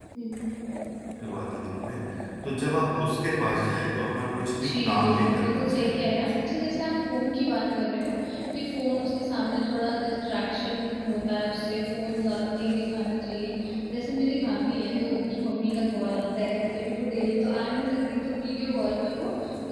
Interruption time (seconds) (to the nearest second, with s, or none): 5 s